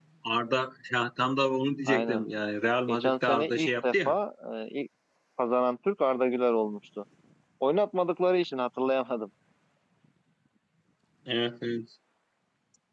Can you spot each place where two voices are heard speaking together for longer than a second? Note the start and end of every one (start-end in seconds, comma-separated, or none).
2.9-4.1